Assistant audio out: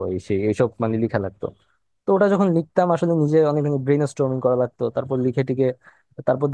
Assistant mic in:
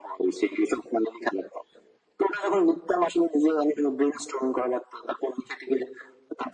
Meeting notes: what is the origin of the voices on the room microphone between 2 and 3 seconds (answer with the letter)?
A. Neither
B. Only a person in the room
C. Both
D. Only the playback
D